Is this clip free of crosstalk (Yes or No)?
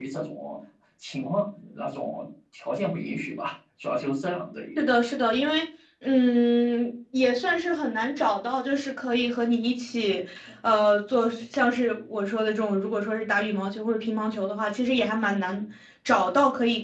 Yes